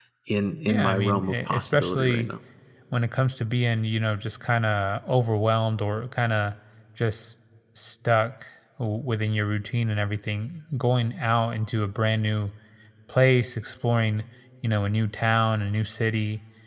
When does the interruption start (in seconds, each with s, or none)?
0.7 s